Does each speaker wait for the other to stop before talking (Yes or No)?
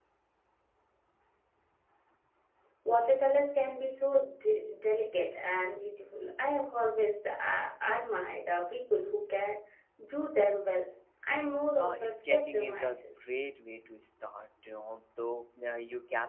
No